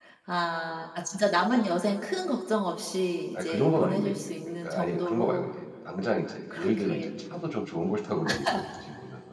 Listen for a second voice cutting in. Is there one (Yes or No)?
Yes